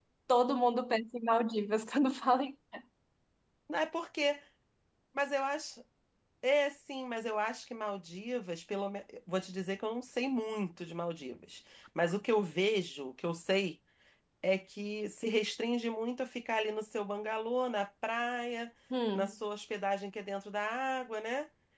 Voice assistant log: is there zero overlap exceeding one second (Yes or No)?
Yes